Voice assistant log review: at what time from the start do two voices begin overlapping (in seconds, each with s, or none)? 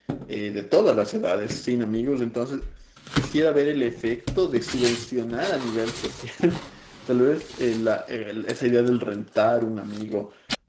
none